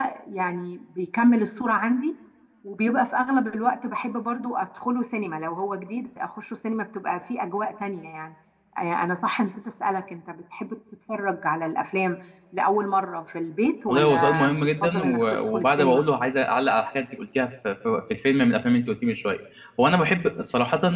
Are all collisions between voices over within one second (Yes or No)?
No